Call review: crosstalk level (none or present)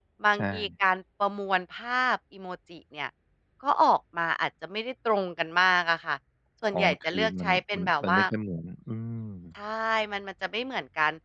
present